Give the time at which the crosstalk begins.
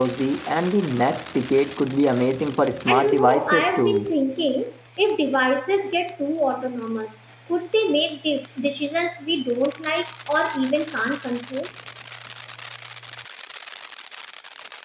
2.9 s

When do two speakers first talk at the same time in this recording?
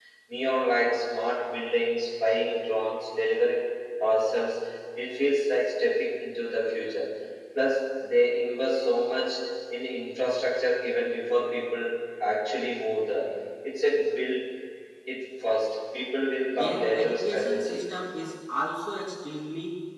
16.5 s

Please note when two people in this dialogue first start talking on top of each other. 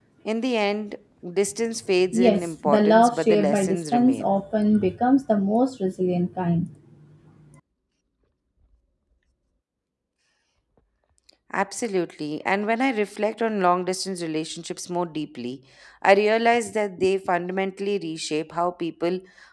2.1 s

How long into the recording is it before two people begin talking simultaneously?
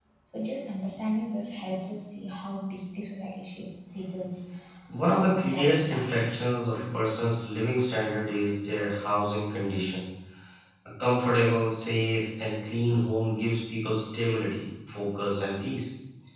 5.1 s

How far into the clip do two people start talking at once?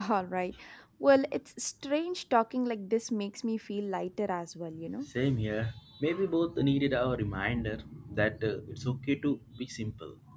none

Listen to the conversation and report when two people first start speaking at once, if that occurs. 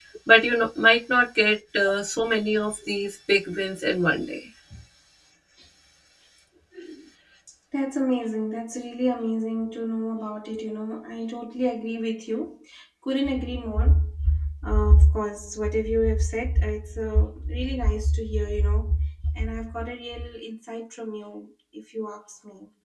none

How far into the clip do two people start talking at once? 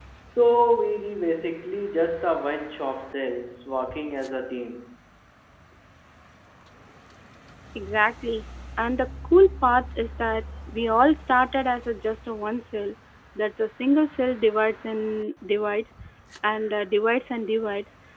none

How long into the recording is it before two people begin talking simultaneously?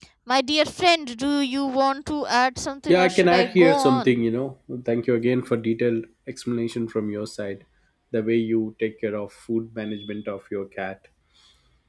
2.9 s

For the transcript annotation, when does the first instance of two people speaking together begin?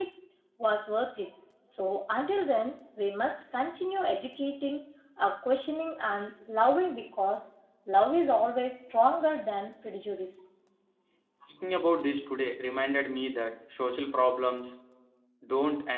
none

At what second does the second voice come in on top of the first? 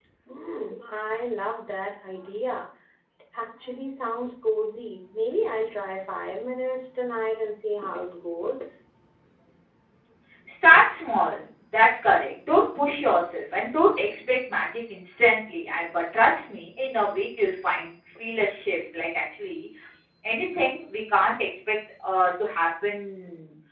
none

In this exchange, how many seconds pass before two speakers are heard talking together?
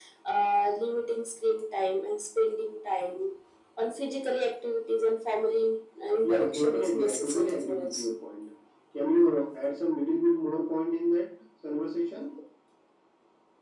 6.2 s

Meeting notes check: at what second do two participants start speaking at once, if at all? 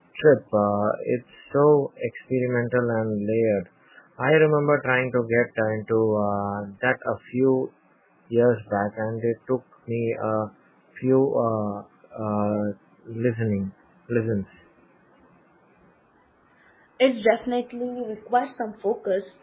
none

